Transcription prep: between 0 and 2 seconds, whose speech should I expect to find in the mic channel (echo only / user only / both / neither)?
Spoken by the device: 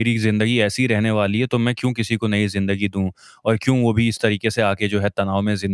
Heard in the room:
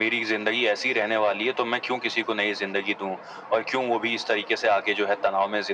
echo only